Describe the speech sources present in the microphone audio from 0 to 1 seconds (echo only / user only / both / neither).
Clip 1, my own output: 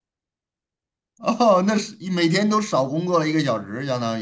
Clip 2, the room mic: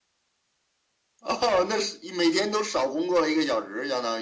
neither